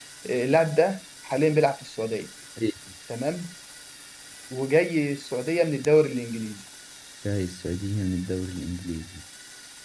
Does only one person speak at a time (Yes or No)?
Yes